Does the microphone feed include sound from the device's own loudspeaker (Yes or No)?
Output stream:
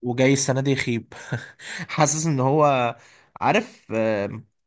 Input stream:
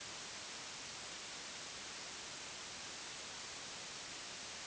No